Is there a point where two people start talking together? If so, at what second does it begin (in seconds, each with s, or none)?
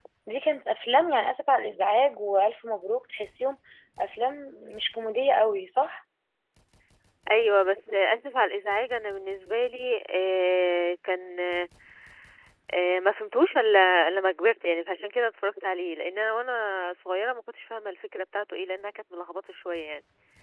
none